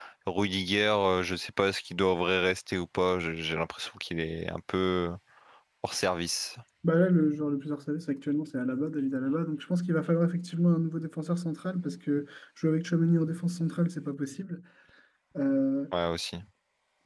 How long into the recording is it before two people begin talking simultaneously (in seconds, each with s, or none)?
none